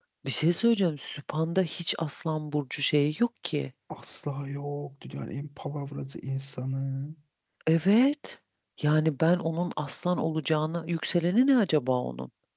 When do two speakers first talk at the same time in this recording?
none

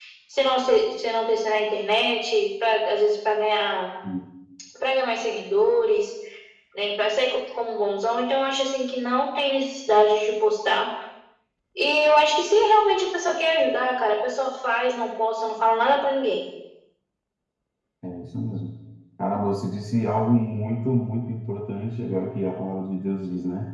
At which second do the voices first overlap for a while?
none

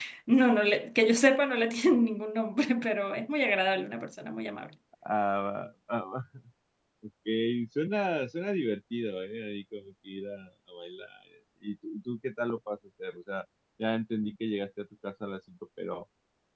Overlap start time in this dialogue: none

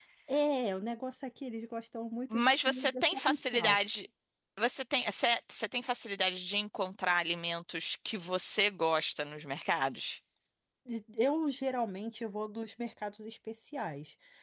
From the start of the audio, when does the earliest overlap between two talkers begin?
2 s

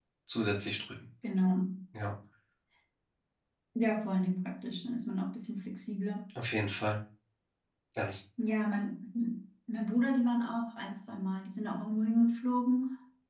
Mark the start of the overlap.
none

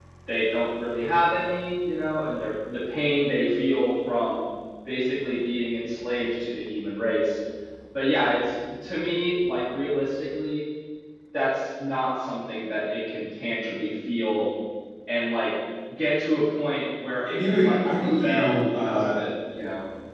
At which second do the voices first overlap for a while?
17 s

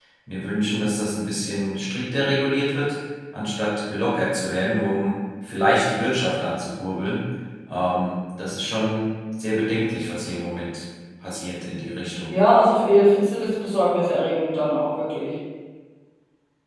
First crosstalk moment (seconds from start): none

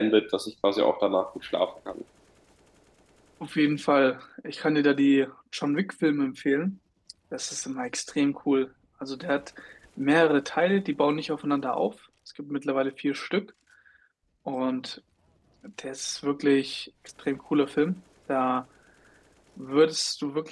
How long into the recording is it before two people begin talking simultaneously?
none

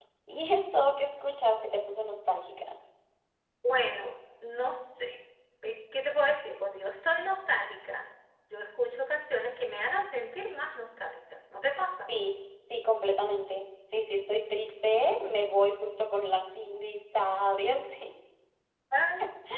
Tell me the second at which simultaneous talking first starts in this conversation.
none

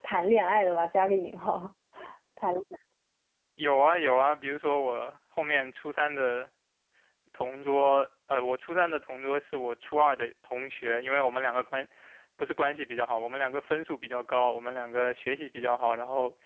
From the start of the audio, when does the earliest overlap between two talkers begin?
none

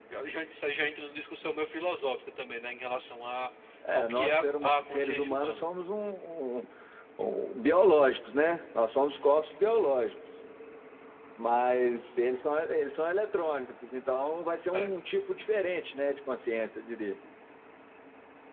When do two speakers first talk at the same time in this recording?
4 s

